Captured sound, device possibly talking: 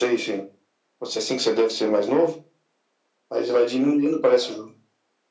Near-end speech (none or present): none